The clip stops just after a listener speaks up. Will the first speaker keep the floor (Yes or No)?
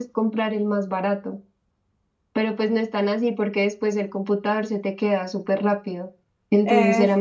Yes